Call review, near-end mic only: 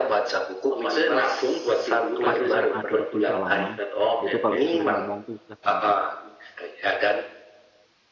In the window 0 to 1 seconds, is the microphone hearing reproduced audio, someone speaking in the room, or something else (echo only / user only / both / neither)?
echo only